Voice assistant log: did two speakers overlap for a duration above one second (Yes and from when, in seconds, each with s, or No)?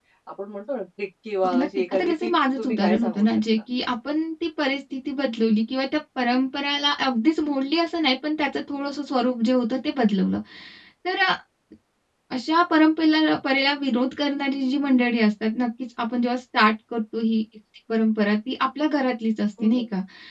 Yes, from 1.4 s